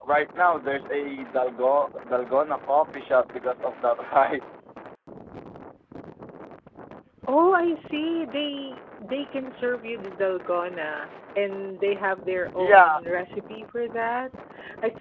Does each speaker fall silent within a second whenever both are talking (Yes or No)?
Yes